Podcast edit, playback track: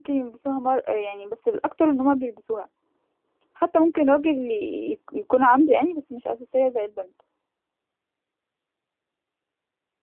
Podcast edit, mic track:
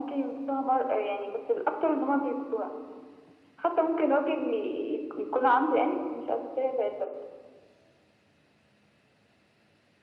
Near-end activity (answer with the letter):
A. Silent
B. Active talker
A